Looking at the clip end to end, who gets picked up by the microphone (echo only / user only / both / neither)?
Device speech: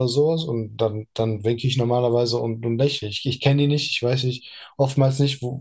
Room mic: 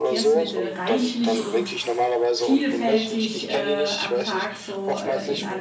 both